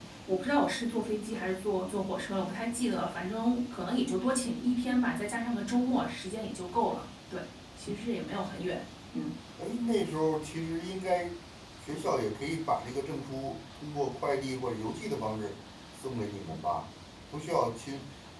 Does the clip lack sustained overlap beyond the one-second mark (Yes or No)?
Yes